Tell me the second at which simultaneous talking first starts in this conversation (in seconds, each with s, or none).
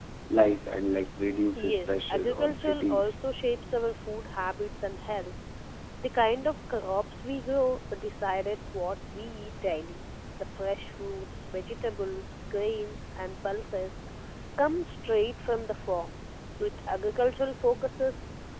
1.6 s